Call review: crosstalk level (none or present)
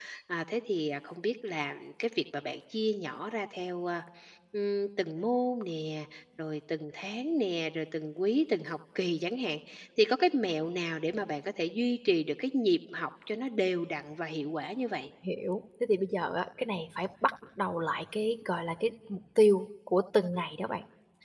none